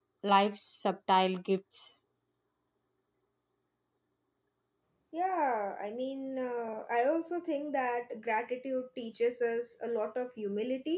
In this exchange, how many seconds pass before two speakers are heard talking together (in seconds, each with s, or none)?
none